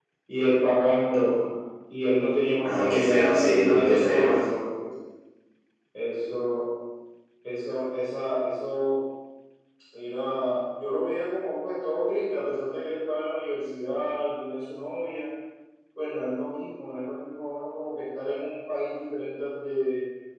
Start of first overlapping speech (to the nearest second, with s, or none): 3 s